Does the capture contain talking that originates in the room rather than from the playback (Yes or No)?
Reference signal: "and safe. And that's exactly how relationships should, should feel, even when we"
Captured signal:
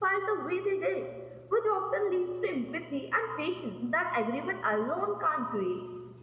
Yes